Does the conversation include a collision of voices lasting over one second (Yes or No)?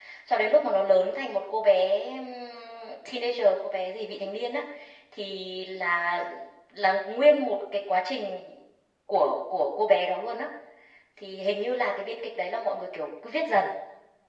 No